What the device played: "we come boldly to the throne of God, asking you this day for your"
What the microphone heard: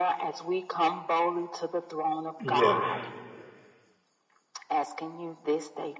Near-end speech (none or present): present